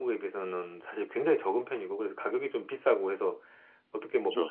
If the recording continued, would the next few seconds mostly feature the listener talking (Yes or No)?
No